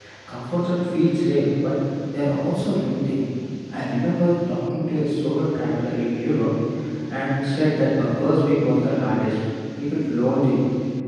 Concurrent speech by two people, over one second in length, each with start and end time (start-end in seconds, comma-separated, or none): none